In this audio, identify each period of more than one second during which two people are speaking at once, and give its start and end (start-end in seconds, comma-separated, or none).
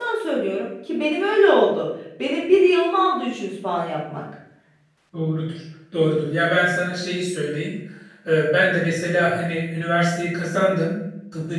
none